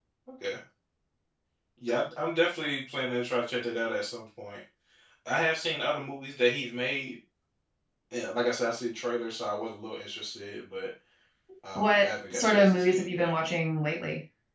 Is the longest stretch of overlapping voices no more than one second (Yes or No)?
No